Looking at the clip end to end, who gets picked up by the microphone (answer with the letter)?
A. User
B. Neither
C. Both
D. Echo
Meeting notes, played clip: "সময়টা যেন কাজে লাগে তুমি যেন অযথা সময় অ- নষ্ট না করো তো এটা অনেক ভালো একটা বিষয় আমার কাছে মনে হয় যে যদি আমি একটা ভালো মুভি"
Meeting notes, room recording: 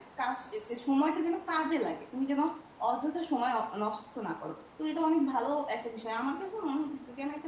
D